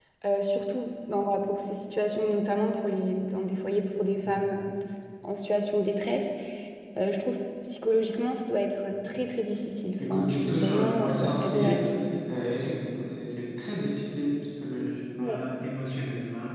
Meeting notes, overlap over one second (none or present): present